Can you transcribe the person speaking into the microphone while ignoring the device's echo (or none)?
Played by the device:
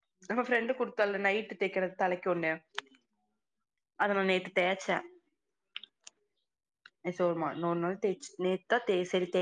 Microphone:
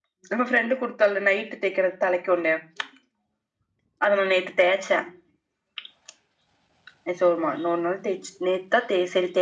none